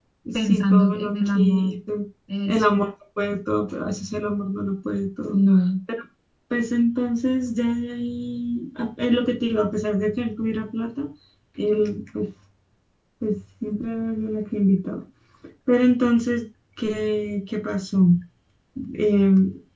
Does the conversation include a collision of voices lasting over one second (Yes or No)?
Yes